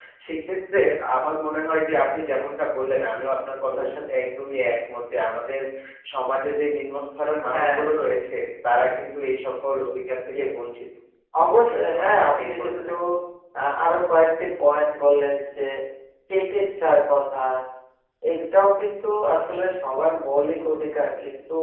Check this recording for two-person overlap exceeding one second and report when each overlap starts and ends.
11.5-12.9

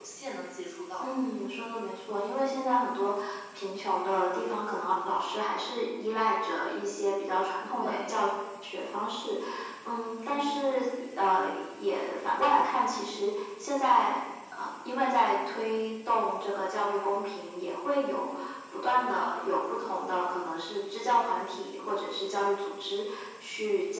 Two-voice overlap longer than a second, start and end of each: none

